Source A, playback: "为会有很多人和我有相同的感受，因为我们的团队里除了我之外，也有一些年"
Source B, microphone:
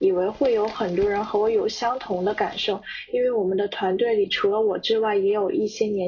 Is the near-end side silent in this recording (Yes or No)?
Yes